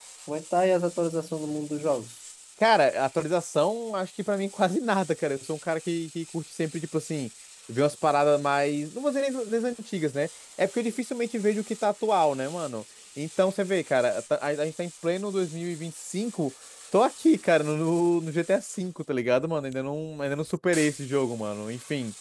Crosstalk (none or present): none